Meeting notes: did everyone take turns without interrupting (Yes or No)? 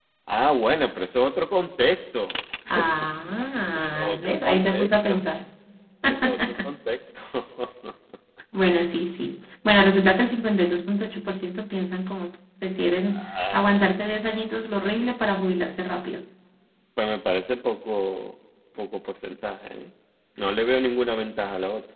No